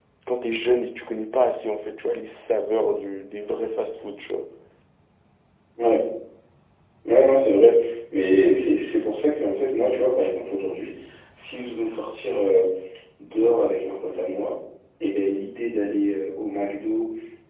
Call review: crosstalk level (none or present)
none